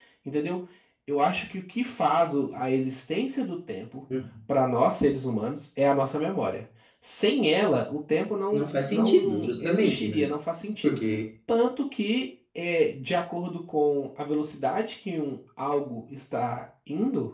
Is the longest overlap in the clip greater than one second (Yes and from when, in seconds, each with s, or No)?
Yes, from 8.5 s